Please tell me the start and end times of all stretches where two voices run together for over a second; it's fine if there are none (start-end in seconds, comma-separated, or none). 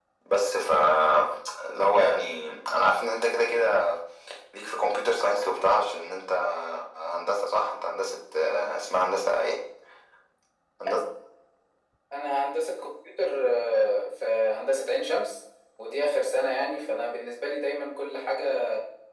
none